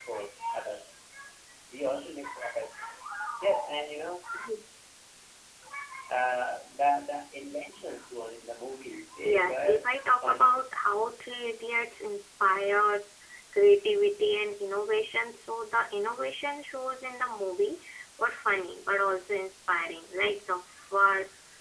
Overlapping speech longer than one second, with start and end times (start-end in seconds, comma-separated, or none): 9.2-10.6